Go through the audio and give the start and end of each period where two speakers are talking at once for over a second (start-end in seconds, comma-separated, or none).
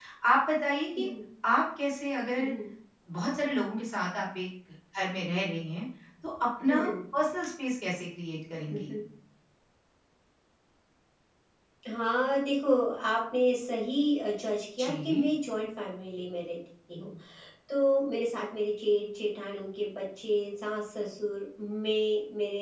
none